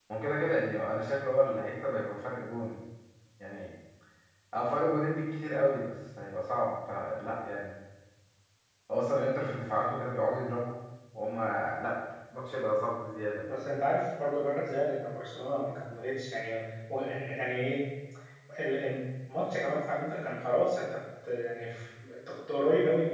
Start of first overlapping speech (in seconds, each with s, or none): none